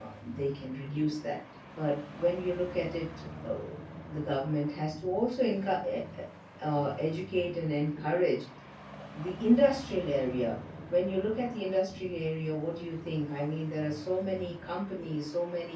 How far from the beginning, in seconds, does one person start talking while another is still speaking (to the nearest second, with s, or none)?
none